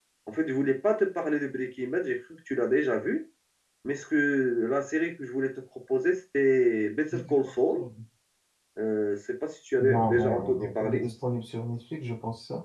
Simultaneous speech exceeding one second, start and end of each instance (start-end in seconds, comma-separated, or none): 9.8-11.1